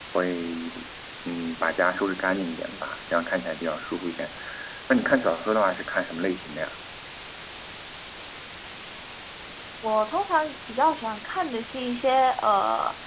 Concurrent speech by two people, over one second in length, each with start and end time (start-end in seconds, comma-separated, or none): none